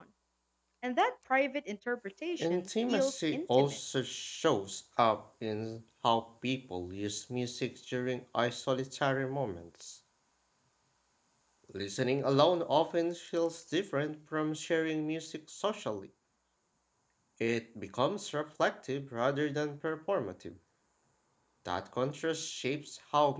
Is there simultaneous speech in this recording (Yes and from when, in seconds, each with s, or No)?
Yes, from 2.4 s